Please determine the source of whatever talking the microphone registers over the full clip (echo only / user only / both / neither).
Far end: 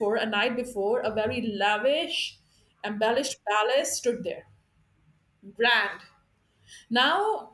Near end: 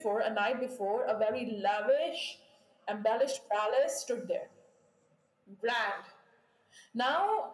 echo only